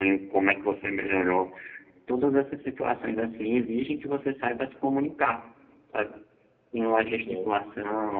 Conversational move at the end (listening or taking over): listening